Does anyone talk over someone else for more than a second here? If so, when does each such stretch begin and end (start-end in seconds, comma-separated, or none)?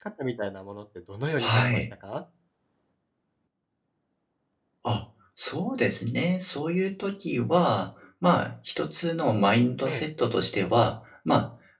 none